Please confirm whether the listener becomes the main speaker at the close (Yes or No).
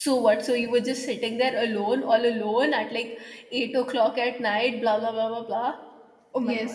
Yes